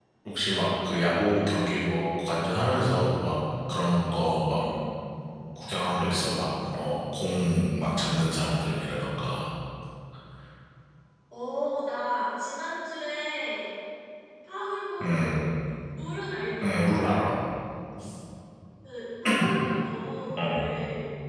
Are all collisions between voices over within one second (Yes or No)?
Yes